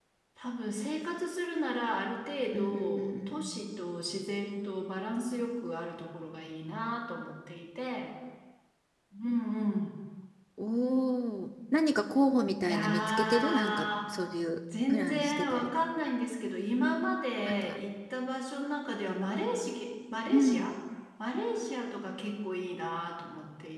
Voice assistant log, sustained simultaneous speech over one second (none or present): present